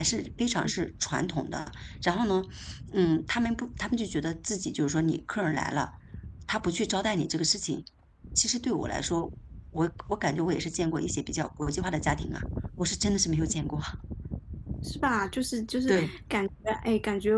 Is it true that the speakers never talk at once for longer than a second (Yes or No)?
Yes